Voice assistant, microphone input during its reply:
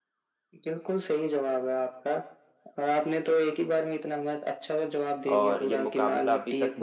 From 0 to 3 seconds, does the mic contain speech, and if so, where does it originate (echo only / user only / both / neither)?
echo only